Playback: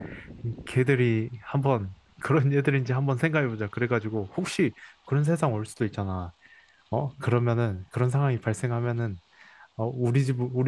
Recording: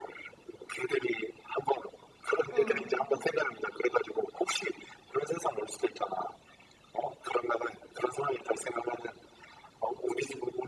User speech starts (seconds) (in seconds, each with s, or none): 2.5 s